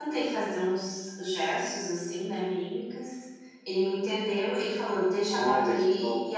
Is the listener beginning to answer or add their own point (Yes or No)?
No